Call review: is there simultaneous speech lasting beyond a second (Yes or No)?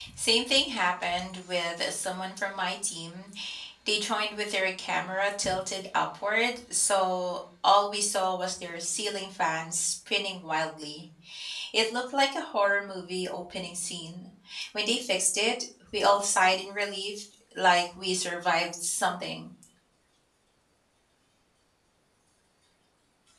No